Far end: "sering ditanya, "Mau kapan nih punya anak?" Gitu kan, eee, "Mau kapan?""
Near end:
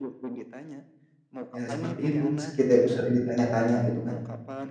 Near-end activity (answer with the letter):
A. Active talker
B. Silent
A